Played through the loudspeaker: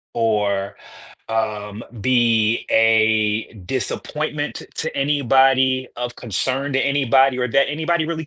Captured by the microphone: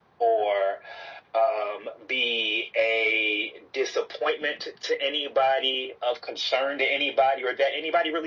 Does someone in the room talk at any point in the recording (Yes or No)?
No